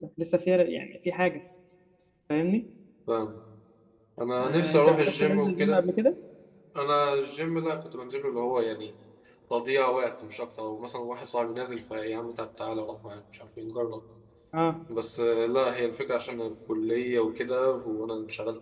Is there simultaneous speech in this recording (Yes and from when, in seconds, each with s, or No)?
Yes, from 4.4 s